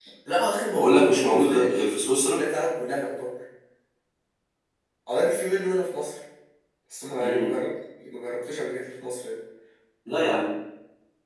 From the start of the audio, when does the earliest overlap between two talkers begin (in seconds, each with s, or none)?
0.8 s